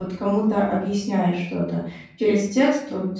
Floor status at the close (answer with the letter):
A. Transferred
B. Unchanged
B